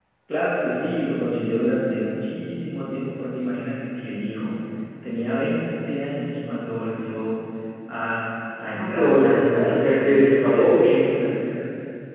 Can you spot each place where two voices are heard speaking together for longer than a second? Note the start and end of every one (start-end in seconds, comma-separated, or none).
8.7-11.0